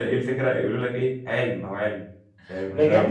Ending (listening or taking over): taking over